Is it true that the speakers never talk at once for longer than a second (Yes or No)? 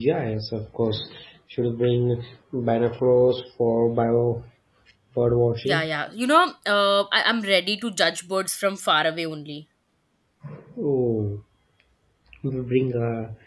Yes